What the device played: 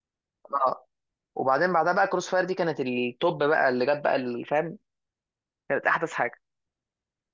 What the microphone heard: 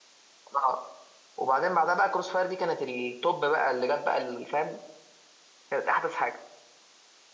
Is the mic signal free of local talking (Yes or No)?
Yes